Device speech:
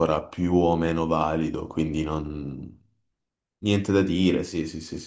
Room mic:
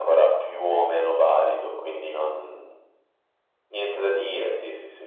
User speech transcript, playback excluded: none

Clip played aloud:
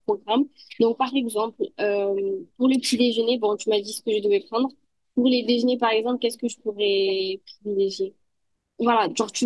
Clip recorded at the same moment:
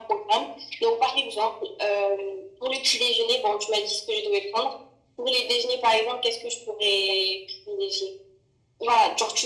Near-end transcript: none

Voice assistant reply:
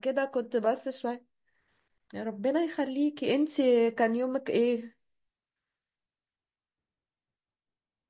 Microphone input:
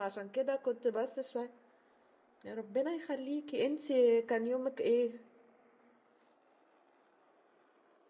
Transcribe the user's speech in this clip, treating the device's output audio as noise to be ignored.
none

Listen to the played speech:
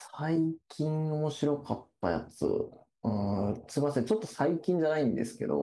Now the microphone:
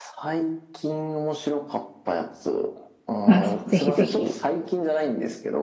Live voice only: あ、ぜひぜひ。

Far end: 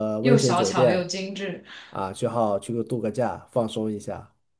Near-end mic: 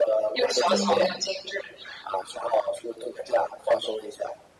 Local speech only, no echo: 嗯

